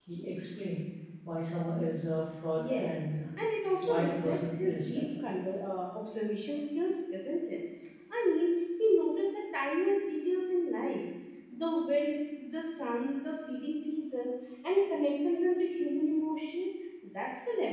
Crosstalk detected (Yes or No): Yes